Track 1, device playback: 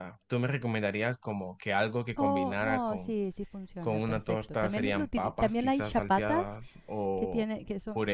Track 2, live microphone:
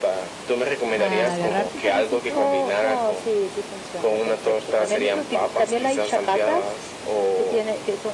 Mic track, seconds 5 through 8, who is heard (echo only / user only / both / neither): echo only